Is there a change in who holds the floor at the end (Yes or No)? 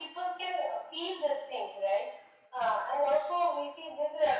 No